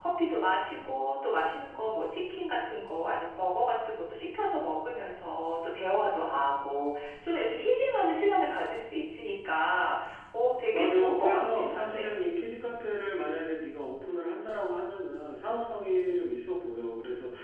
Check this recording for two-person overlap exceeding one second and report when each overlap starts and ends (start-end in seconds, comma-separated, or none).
10.7-12.2